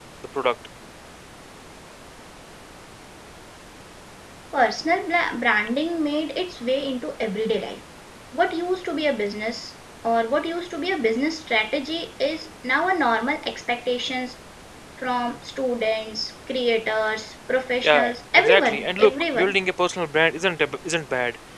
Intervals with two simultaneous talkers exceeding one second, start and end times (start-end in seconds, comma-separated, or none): 17.8-19.6